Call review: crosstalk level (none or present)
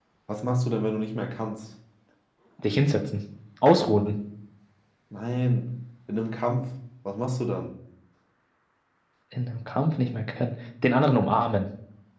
none